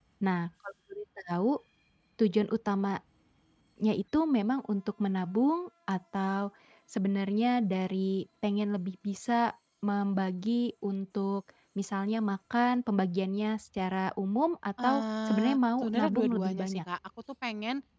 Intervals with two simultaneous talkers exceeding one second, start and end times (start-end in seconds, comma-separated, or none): 14.8-16.8